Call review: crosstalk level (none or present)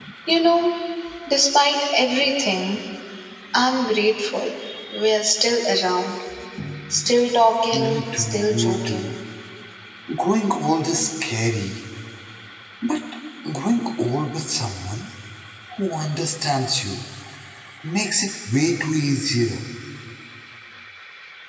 present